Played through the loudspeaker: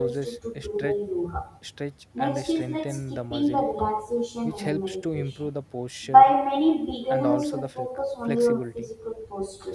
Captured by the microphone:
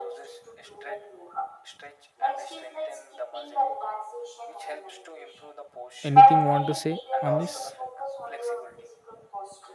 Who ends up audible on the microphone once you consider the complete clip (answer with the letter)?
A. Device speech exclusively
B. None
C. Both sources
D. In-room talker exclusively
C